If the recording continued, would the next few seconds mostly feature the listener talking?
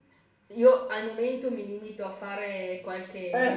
No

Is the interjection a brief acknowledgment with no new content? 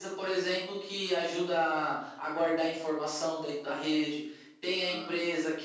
Yes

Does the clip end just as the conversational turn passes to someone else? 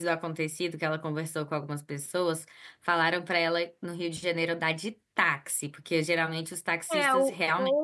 Yes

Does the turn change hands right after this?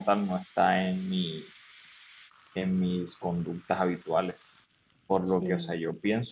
No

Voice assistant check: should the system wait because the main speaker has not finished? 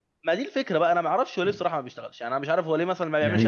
No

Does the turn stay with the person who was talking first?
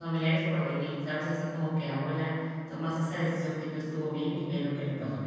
Yes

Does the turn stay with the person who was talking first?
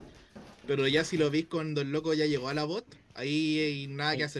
No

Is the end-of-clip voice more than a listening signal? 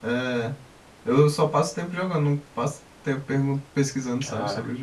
Yes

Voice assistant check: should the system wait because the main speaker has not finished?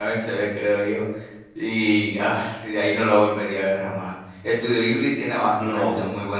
Yes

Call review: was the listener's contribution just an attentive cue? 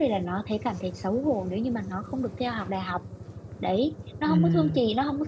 Yes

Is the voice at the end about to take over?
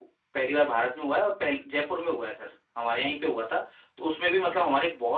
No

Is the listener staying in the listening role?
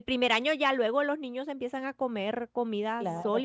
No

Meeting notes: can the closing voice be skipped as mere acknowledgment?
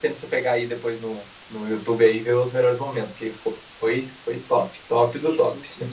No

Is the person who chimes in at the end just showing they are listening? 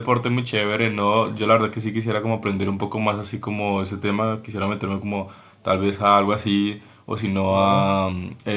Yes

